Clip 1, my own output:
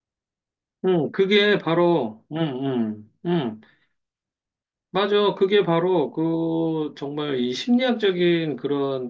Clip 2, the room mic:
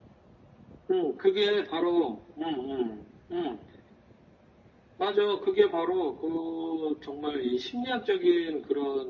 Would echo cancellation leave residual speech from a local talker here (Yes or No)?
No